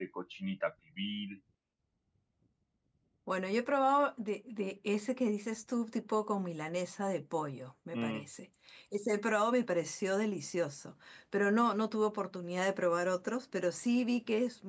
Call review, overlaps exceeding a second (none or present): none